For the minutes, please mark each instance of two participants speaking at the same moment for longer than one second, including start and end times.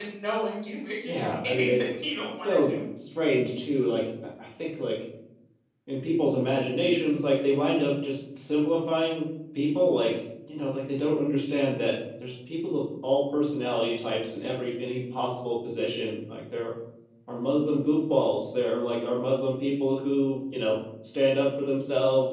1.1-2.7

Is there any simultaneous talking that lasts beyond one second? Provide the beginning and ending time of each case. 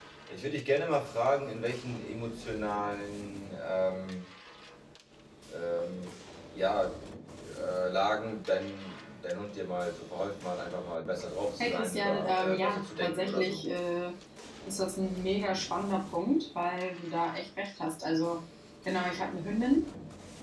11.6-13.6

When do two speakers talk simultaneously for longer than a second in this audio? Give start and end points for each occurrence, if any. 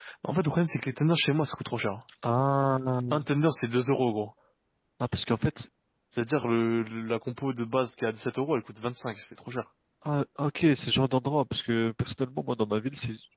none

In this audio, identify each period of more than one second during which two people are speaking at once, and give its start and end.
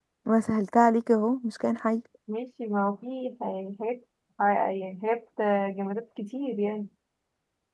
none

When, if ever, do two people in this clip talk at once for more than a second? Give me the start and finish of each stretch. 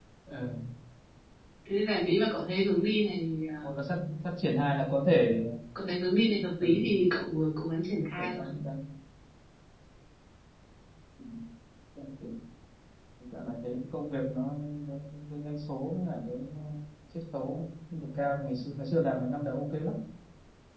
none

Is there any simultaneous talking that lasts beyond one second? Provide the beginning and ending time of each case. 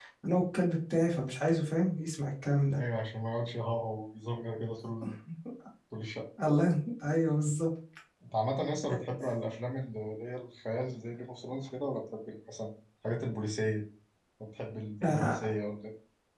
none

